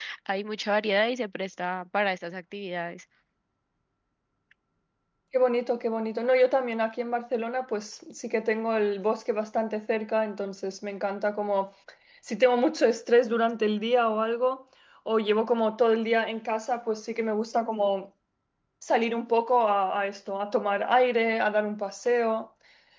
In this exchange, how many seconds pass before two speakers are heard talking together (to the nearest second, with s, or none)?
none